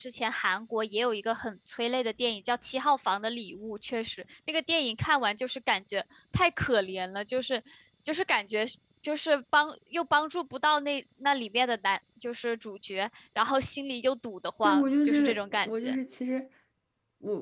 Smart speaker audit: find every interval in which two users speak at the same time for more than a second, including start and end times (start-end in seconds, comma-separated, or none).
14.6-15.9